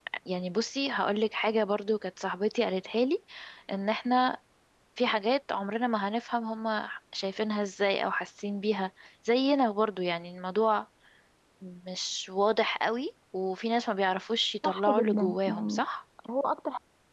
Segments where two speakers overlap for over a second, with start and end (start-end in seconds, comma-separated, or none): 14.6-15.8